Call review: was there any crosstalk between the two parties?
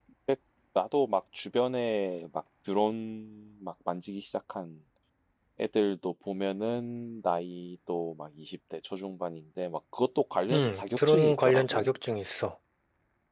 Yes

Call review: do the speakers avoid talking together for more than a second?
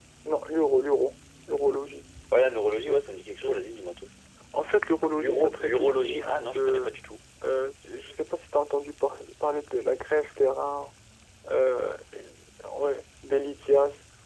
No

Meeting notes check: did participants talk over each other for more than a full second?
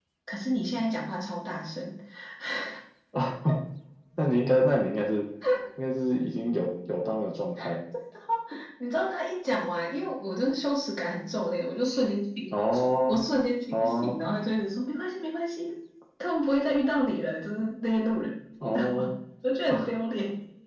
No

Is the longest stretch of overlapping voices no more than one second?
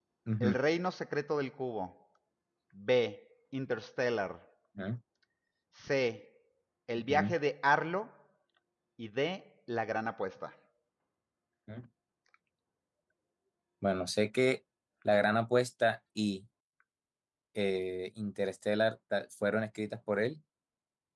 Yes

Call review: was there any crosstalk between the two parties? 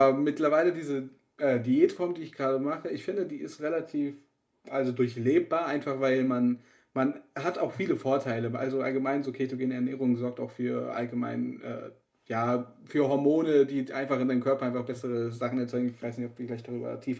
No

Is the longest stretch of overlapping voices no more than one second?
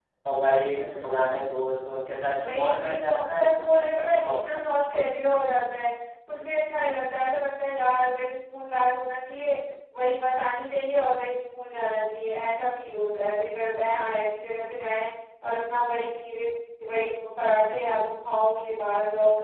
No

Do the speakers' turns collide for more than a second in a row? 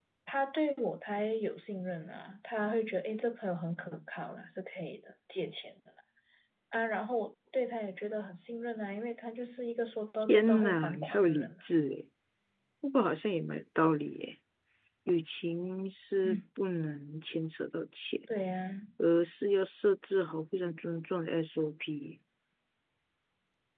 Yes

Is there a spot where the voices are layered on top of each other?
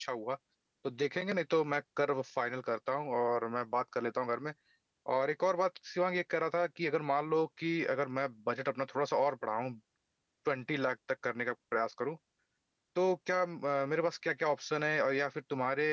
No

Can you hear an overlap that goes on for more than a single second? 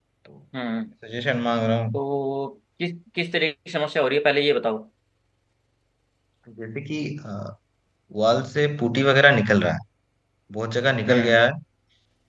No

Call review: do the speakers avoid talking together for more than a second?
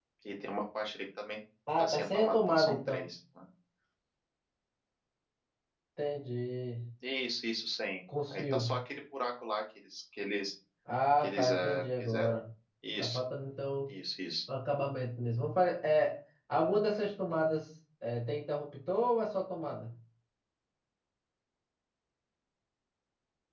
No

